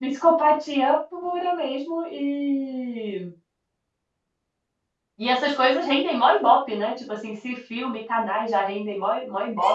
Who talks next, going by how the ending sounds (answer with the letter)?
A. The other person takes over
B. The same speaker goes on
A